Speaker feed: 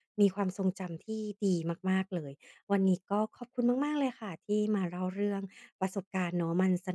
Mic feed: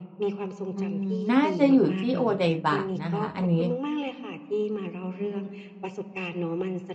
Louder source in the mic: user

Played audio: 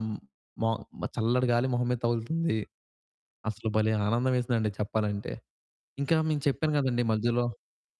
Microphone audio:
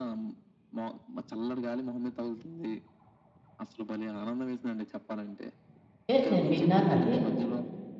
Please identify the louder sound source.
user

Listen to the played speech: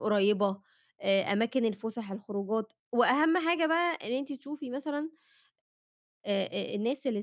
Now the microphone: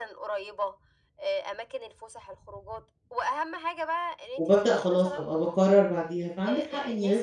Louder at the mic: user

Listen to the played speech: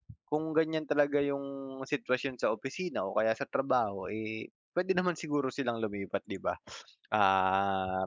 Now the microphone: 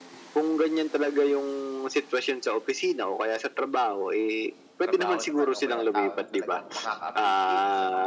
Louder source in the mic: echo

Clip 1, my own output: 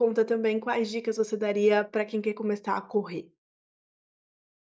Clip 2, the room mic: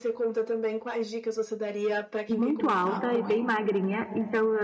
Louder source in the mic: user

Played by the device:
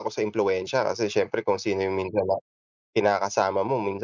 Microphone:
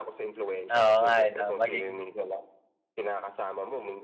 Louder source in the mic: user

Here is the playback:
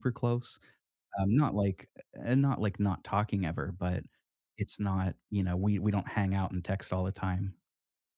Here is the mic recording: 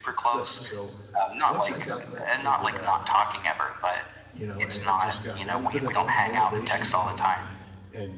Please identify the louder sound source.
echo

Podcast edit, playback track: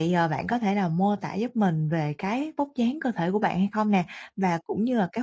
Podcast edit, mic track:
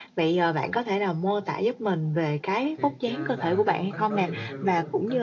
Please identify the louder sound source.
echo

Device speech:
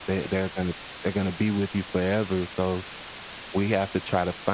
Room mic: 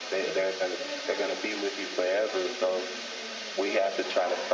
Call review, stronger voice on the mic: echo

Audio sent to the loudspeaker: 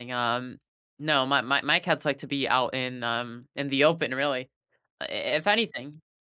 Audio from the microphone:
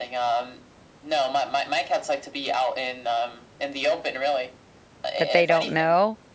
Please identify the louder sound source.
user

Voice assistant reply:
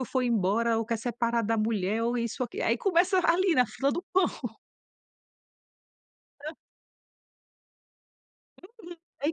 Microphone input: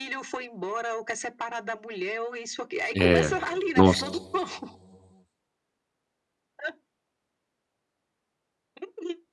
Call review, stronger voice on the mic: user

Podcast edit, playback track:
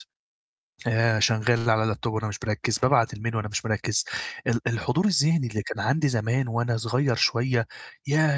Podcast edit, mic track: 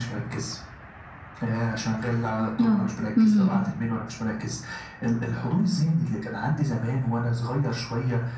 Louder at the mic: user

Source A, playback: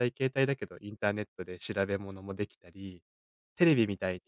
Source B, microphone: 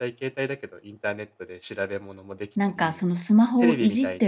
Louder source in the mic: user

